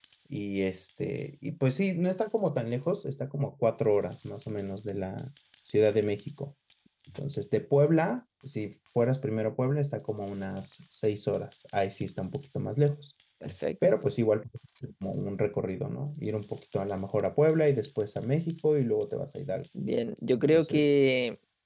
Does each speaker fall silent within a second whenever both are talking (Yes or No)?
Yes